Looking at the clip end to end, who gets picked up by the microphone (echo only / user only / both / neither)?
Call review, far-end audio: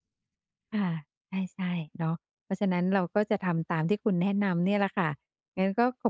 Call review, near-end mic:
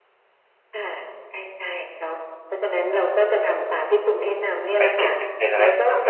both